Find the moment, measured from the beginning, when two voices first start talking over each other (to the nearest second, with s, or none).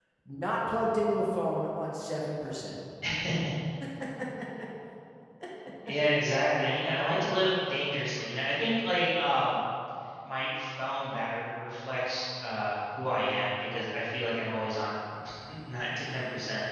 none